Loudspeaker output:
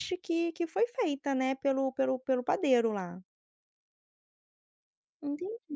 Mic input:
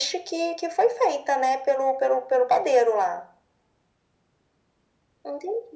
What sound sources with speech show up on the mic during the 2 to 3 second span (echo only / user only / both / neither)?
echo only